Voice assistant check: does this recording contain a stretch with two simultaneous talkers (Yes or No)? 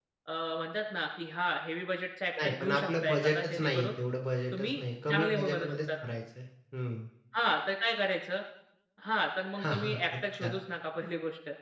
Yes